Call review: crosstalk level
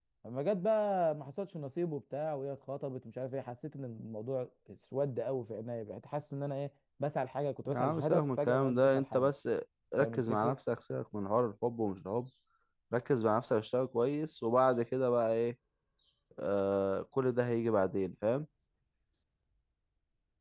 present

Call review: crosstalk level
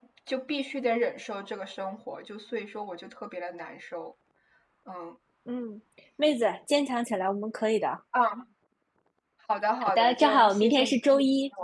present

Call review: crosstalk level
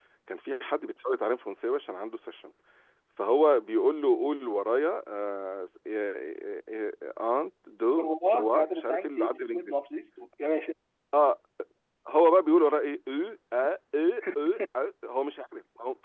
present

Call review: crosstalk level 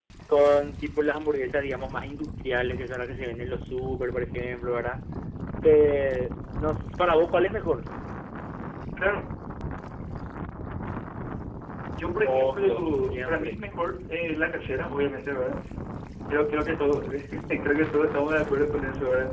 present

